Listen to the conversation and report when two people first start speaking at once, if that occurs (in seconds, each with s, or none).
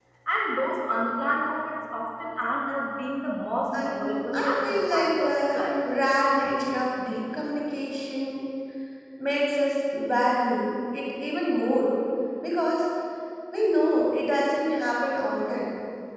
3.7 s